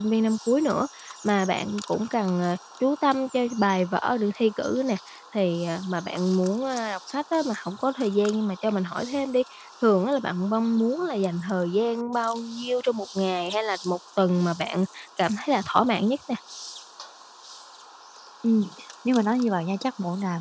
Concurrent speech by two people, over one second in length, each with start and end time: none

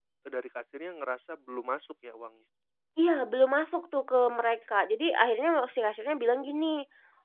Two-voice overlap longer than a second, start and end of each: none

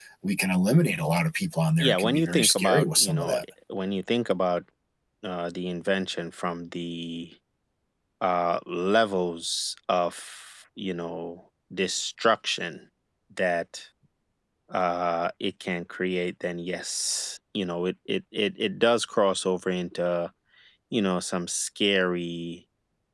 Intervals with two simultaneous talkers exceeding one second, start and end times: 1.8-3.4

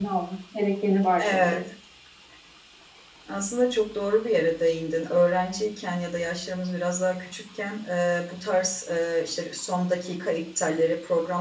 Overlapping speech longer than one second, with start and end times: none

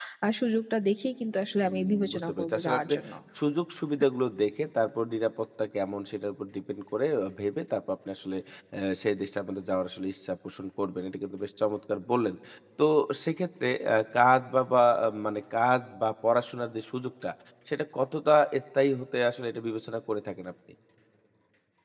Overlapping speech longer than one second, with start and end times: 1.6-3.0

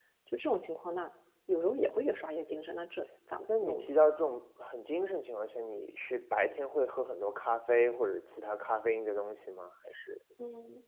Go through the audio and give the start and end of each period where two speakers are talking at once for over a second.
none

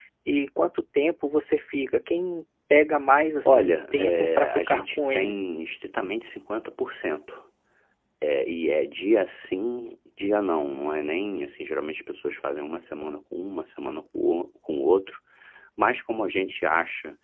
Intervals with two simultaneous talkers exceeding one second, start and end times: 3.4-5.4

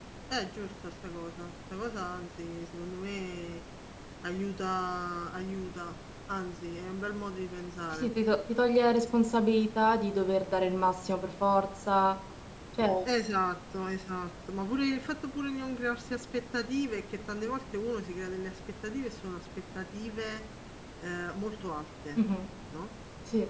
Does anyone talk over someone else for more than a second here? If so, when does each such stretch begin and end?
none

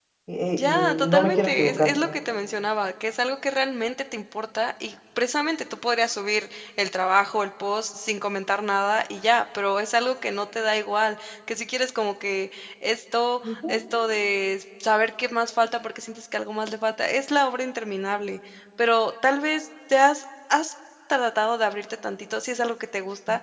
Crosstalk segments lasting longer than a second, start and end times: 0.6-1.9

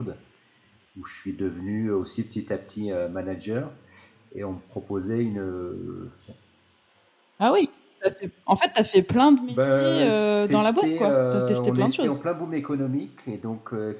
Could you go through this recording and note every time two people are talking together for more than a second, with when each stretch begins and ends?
9.5-12.1

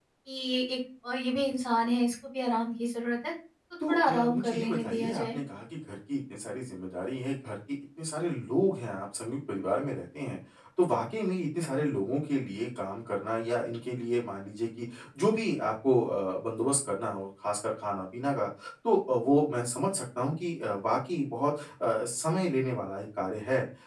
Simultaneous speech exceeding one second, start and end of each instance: 3.9-5.4

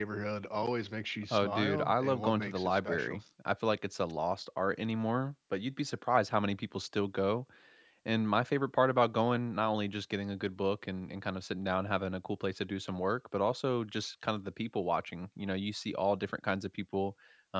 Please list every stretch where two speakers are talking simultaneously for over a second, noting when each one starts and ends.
1.3-3.2

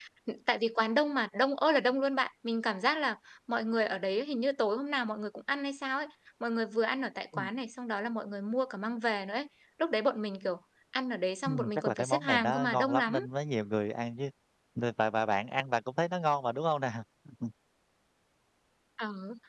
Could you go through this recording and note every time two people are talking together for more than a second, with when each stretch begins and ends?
11.4-13.2

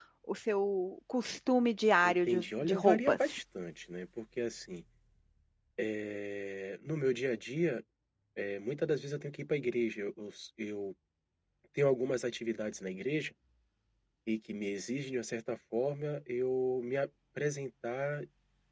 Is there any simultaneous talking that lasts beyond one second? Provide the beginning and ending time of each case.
2.0-3.4

